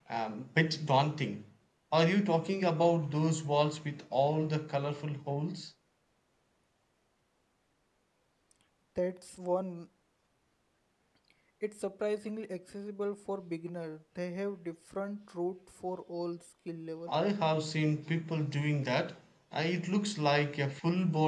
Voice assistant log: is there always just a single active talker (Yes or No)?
Yes